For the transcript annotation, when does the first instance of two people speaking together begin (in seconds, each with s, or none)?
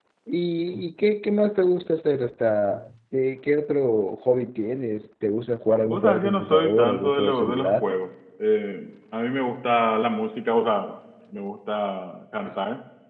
5.8 s